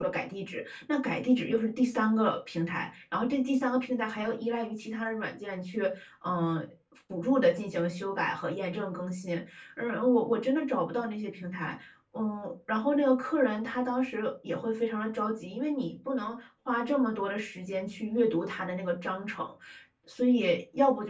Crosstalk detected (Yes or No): No